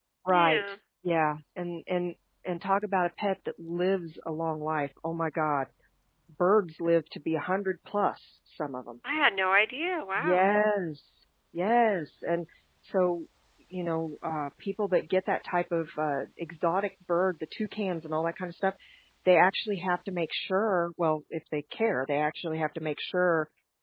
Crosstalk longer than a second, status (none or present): none